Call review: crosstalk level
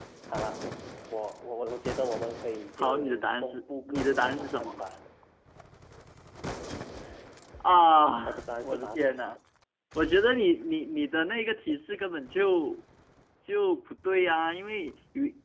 present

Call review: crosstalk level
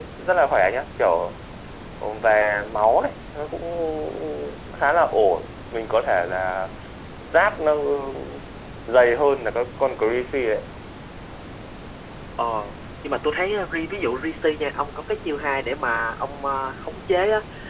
none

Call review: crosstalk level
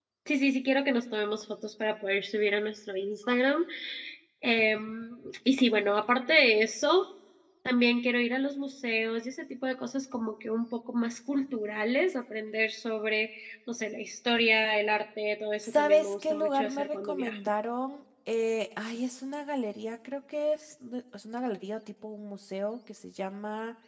present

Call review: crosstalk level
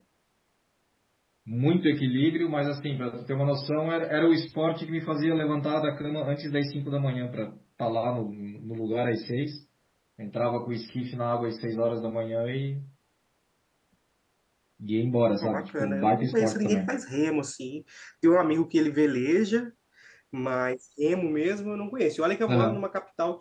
present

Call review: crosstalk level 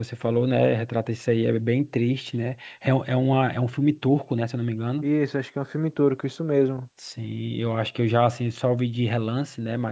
none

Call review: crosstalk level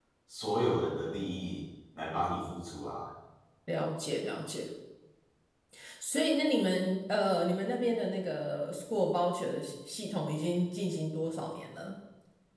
none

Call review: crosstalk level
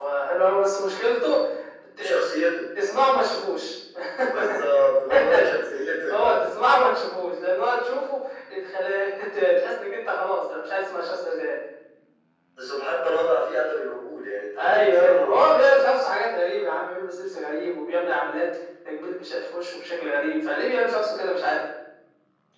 present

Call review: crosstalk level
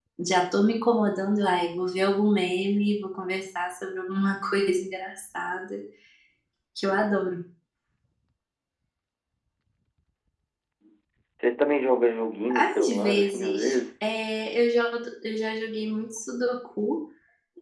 present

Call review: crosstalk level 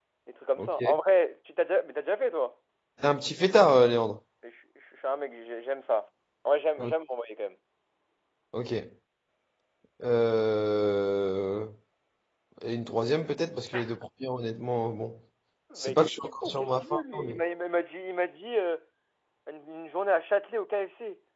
present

